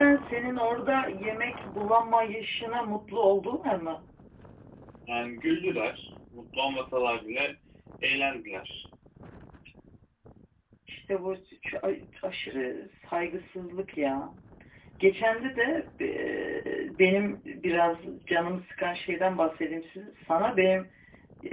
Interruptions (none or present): none